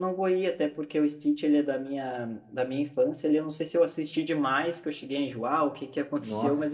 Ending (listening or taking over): listening